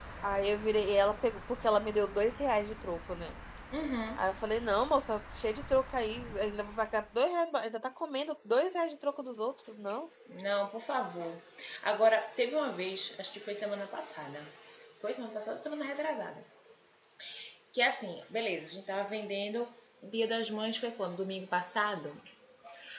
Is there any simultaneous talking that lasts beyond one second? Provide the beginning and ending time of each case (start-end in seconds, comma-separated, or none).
none